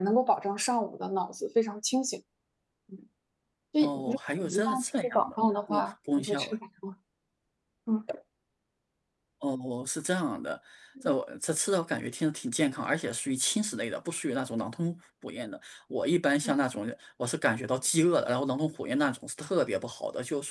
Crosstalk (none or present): present